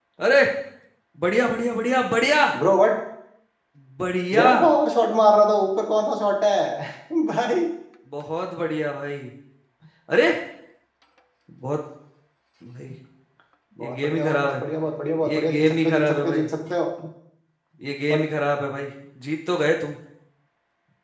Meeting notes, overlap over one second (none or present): present